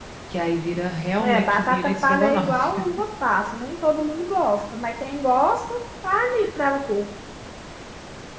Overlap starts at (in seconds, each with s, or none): 1.2 s